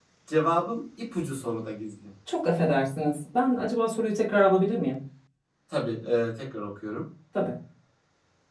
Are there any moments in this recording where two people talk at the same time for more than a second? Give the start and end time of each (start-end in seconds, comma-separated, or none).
none